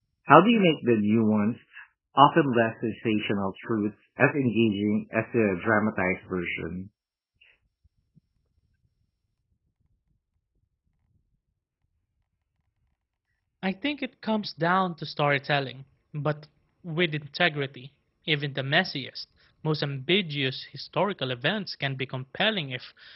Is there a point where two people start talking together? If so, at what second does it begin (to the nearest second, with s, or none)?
none